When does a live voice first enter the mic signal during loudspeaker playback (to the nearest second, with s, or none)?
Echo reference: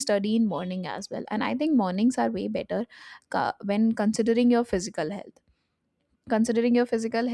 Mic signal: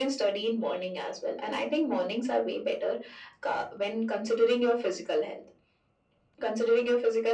none